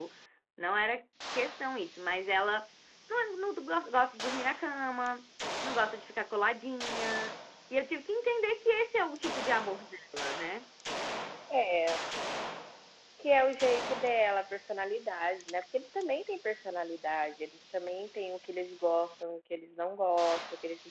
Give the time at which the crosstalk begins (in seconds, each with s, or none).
none